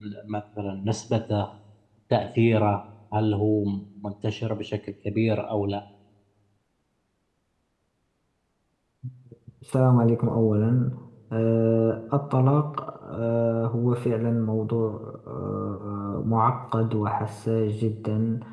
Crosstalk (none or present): none